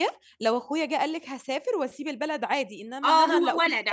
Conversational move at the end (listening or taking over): taking over